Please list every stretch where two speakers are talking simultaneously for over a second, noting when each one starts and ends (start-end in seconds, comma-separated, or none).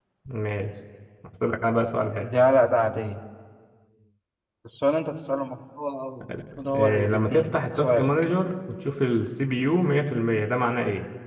6.8-8.1